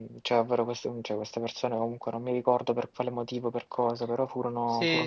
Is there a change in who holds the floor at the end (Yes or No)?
Yes